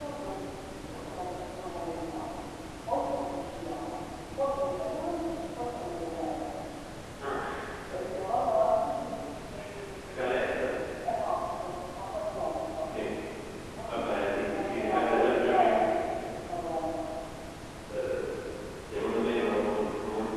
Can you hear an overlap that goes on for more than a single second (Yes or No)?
Yes